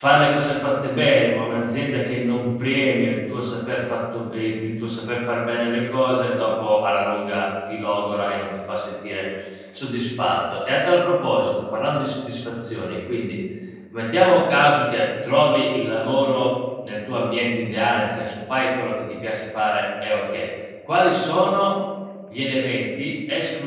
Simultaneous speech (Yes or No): No